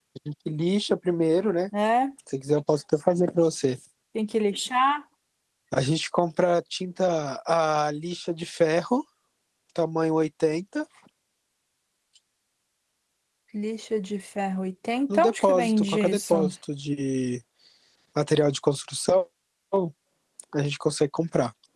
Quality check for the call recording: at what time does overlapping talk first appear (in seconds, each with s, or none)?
15.1 s